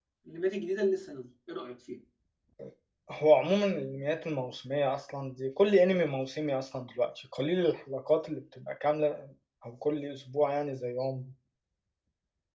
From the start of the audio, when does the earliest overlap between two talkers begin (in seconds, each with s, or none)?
none